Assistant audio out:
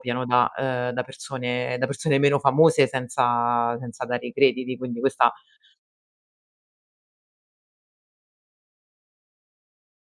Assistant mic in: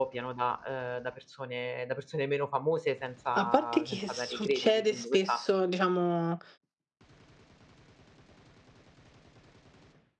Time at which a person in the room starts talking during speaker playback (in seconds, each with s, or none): 3.3 s